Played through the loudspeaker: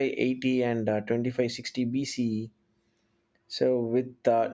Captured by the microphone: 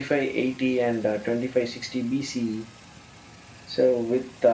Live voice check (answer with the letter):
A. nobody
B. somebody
A